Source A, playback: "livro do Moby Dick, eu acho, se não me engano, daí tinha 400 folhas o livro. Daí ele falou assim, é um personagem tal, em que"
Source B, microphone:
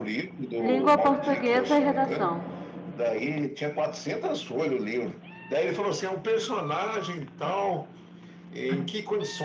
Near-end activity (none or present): present